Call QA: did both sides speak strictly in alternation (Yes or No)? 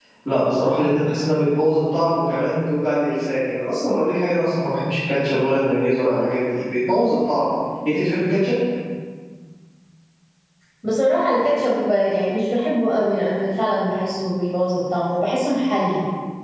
Yes